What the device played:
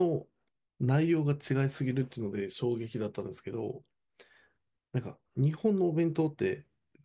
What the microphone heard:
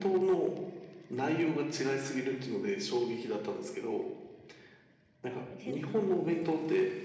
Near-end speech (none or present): present